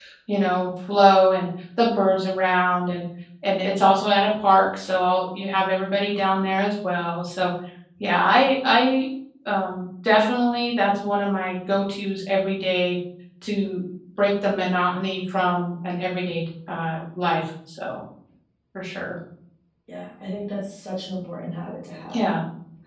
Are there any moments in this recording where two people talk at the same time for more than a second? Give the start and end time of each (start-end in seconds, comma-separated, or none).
none